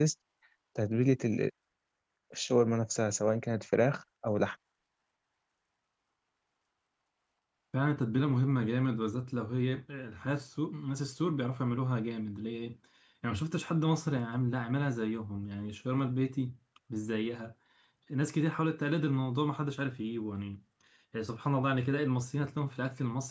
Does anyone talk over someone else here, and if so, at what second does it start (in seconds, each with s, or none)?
none